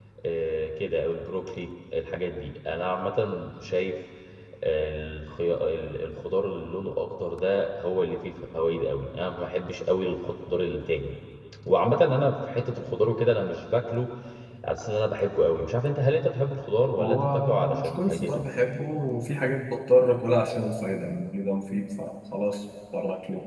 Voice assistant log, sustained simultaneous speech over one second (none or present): present